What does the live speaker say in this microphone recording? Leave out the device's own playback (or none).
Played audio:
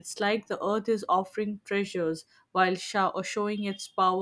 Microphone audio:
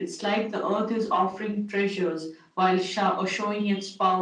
none